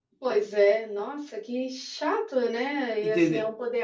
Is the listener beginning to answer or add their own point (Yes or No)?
No